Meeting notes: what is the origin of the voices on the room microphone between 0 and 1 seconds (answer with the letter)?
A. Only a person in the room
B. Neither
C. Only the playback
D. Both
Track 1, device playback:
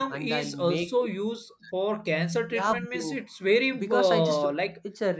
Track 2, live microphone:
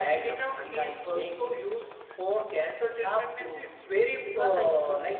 C